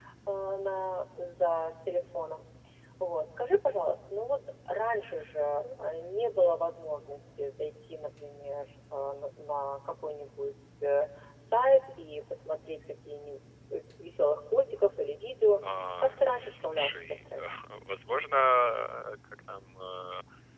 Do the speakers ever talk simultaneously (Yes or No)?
Yes